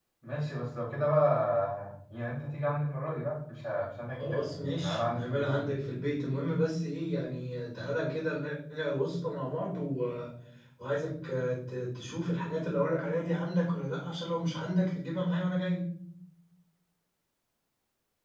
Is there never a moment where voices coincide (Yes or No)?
No